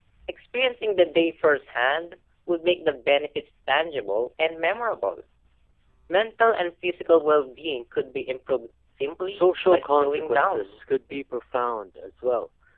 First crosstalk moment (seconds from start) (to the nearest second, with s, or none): 9 s